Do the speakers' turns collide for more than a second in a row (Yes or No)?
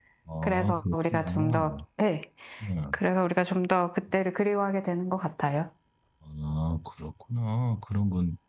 Yes